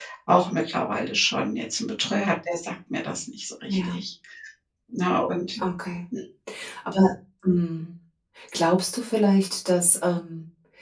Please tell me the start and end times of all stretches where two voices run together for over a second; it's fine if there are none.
none

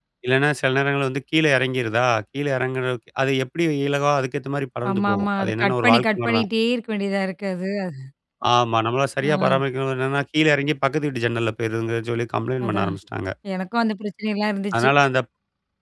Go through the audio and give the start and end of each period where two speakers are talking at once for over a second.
4.9-6.4

